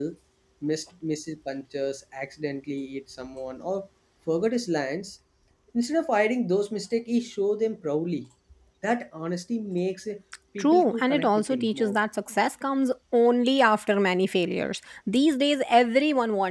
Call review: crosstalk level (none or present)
present